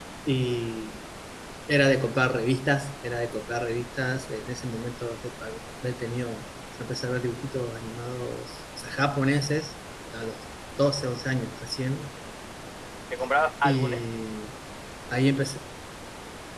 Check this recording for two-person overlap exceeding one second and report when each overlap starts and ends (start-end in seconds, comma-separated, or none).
none